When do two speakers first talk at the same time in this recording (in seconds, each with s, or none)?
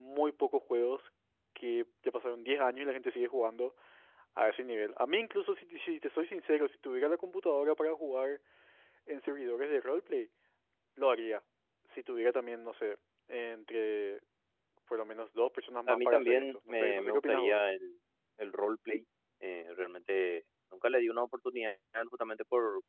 15.9 s